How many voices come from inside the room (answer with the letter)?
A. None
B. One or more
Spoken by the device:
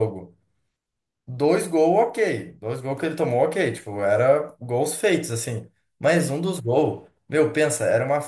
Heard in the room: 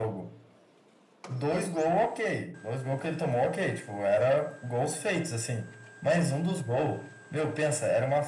A